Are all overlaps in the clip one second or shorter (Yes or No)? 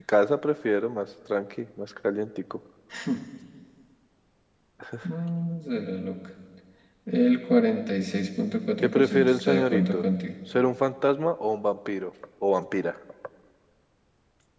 No